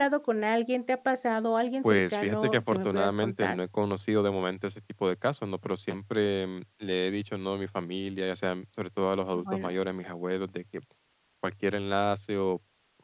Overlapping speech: Yes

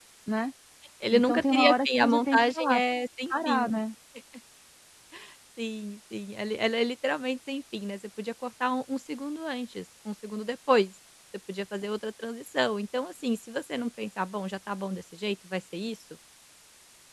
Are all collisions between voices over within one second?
No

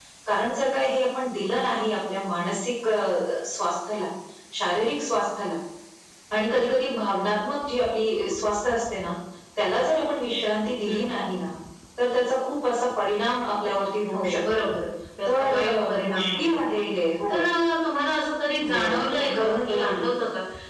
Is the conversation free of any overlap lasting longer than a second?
No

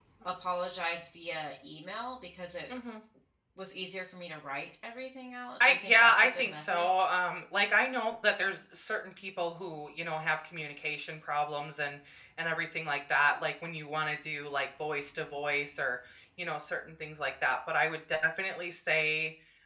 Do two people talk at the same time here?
Yes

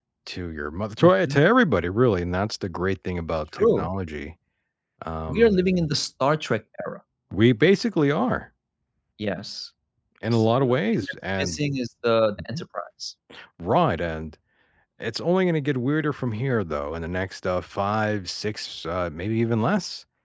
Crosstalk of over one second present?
Yes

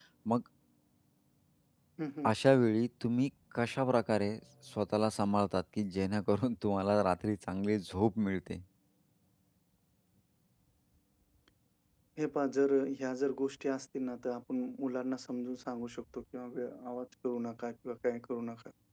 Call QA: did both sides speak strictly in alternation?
Yes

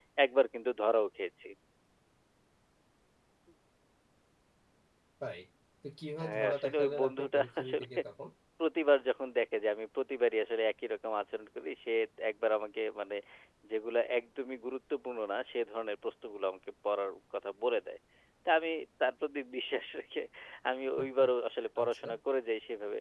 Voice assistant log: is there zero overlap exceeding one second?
No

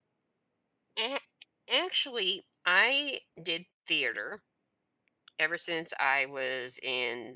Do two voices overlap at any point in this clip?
No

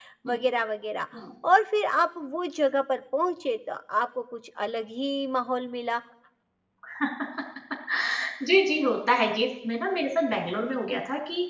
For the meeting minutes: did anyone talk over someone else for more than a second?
No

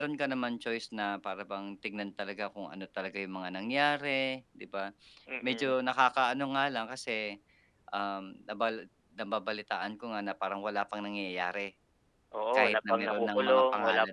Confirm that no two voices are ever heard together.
No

